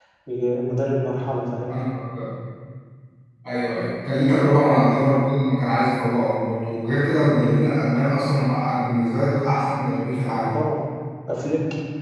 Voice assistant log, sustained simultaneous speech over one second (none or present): none